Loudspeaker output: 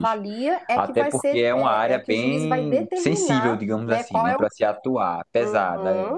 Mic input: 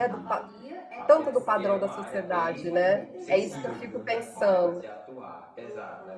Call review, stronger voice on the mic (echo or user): user